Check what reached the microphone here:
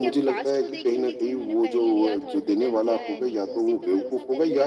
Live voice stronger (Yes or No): No